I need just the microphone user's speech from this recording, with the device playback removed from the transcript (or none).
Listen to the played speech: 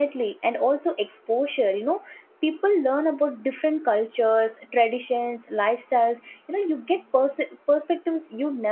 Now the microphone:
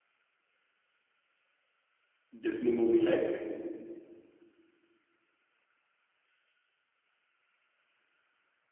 disney movie like